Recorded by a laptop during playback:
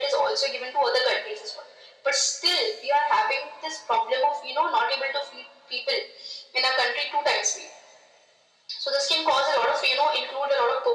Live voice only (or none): none